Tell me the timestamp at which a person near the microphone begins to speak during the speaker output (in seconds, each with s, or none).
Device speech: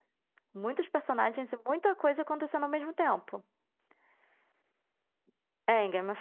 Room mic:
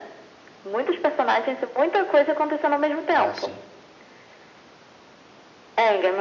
3.1 s